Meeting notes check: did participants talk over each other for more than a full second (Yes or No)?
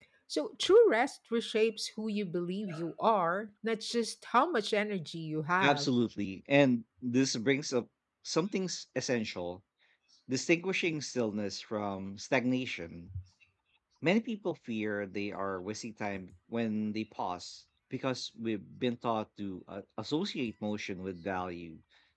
No